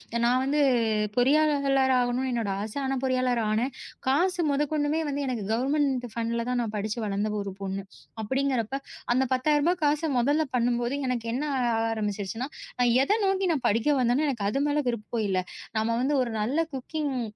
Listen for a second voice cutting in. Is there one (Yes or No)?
No